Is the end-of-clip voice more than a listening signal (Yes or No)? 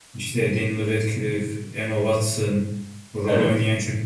No